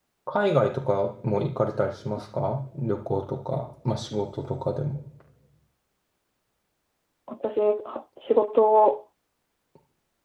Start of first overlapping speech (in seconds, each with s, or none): none